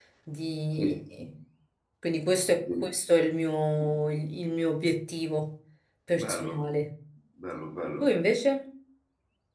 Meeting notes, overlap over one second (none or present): none